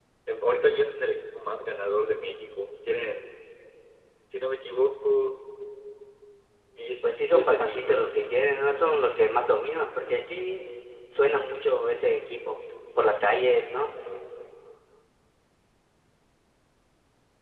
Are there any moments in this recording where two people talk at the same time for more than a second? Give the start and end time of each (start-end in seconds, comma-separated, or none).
7.0-8.3